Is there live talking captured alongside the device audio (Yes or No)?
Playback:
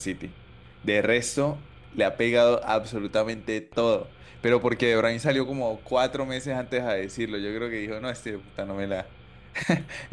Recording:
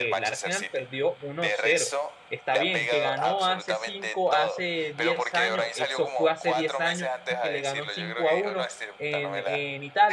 Yes